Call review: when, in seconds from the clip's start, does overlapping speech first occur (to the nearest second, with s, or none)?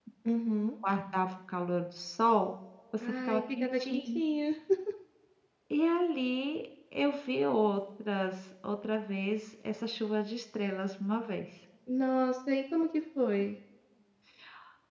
3 s